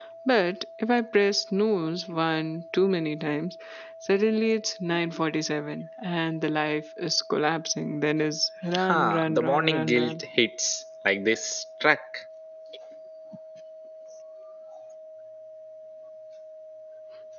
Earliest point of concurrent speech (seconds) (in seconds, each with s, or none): 8.7 s